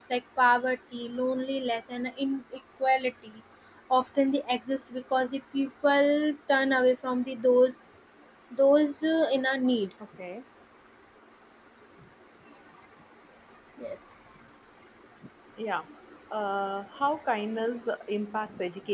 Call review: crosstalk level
none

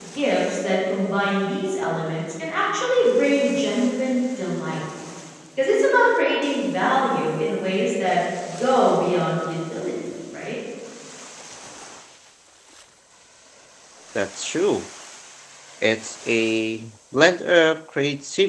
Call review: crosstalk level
none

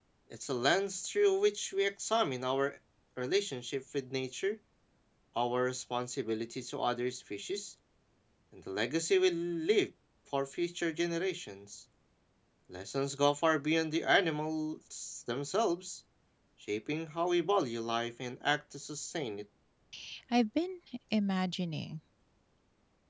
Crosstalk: none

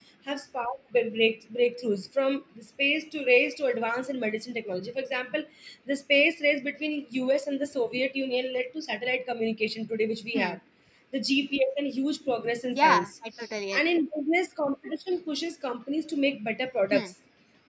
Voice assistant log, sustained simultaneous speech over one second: none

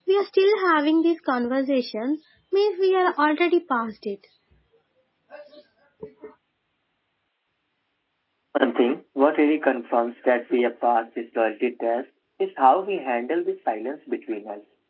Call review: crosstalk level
none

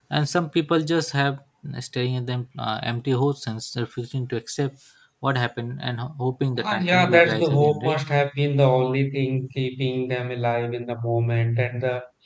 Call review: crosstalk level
present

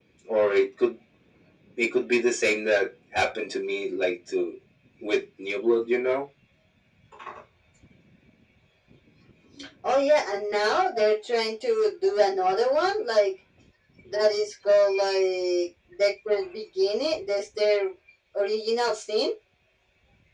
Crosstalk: none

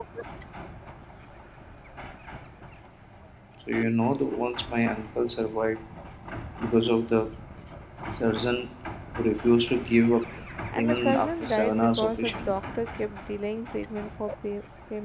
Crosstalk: present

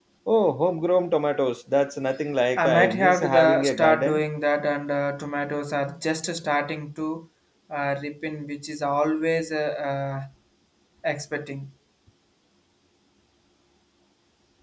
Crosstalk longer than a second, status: present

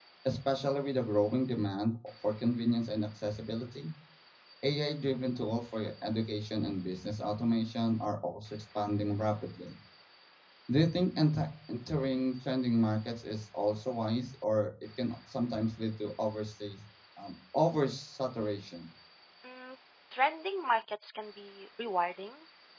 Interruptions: none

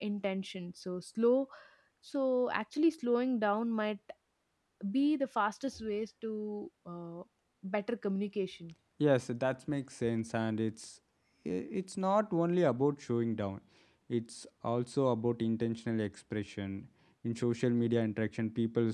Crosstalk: none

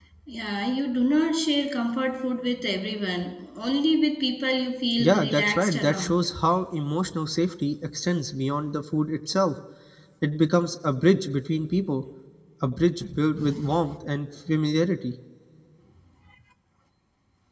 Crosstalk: present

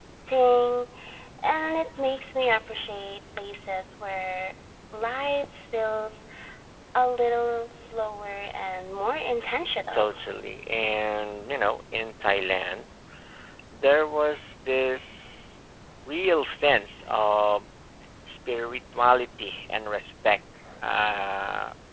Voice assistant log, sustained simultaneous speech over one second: none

